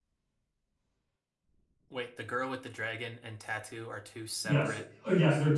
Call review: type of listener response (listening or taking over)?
taking over